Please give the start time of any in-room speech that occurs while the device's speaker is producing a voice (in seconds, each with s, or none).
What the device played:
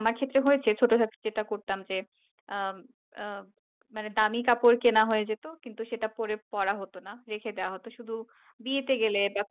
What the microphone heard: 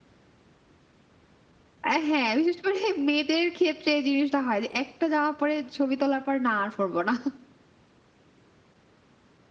1.8 s